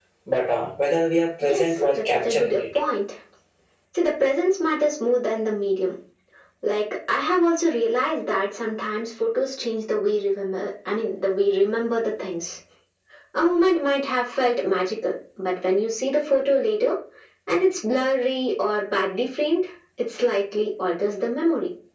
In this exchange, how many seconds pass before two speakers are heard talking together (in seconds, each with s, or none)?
1.4 s